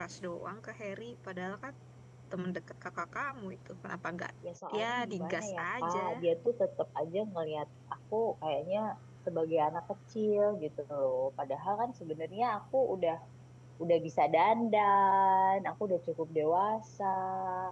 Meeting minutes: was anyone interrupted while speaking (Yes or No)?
Yes